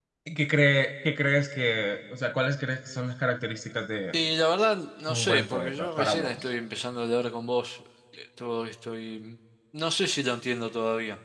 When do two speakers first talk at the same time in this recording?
5.1 s

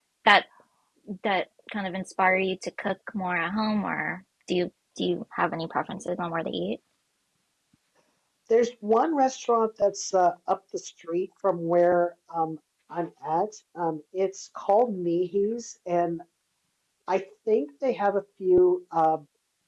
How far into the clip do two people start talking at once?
none

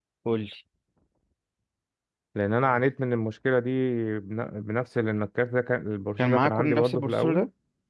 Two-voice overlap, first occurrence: 6.2 s

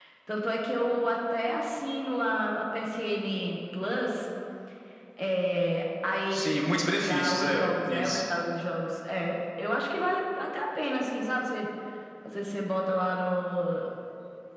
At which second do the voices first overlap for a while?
6.3 s

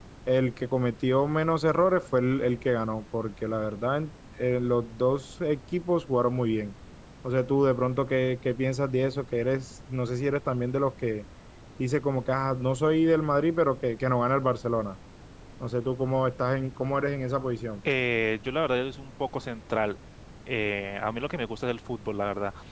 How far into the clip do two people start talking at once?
none

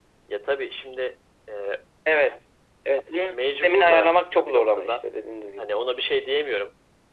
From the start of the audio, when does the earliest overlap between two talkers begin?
3.3 s

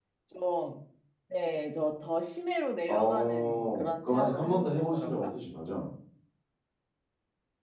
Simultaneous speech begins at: 2.9 s

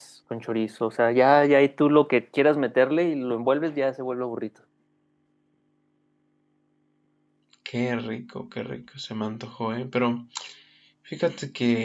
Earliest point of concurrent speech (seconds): none

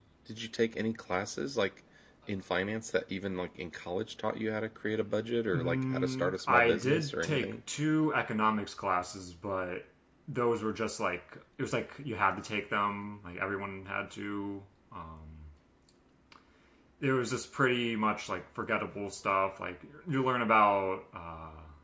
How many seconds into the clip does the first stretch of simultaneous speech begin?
5.5 s

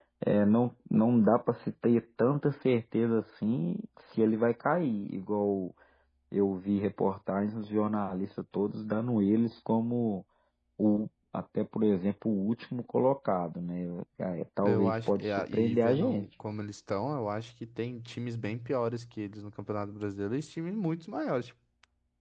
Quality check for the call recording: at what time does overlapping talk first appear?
14.6 s

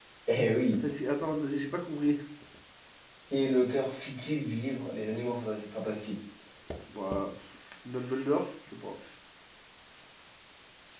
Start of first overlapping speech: none

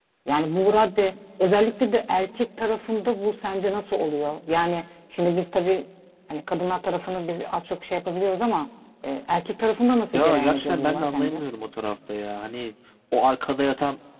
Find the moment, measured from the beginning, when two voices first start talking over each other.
10.1 s

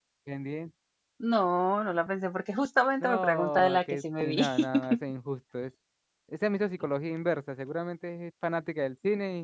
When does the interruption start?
3.0 s

